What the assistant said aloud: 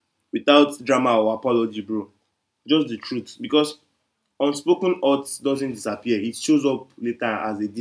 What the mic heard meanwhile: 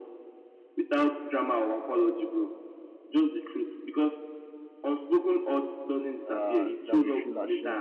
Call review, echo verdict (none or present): present